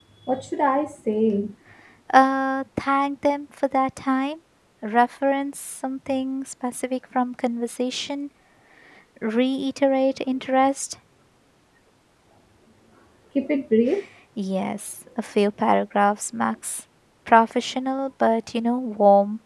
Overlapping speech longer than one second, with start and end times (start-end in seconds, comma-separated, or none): none